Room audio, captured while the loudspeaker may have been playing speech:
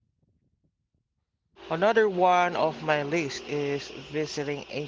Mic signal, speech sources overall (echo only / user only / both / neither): user only